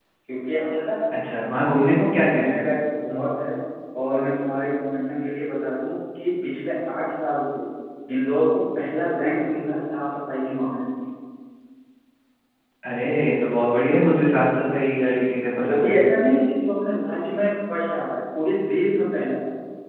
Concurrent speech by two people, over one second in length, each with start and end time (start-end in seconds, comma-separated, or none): none